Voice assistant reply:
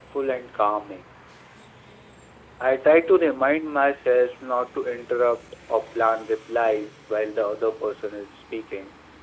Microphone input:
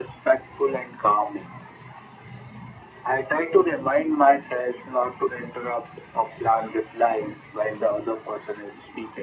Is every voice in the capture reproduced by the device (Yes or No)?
Yes